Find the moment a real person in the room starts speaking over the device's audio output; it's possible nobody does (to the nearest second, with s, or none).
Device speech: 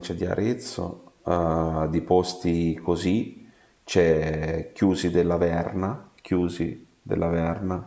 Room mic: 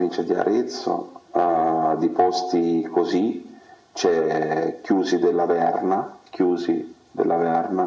none